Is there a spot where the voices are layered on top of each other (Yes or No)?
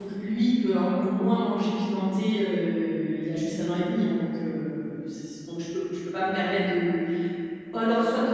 No